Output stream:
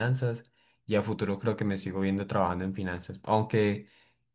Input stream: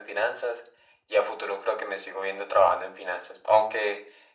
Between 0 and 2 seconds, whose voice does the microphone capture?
echo only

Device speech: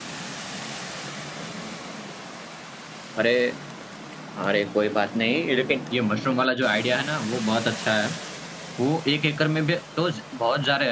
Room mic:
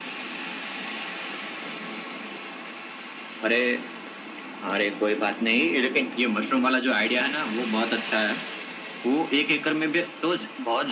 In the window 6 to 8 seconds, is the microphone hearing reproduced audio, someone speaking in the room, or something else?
echo only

